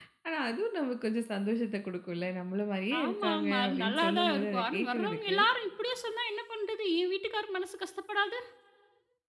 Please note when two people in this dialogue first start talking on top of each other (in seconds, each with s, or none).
2.9 s